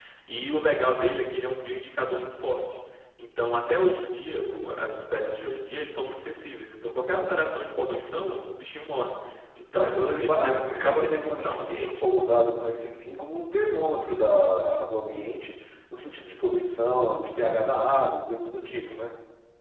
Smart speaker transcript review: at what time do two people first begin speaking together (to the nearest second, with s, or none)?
10 s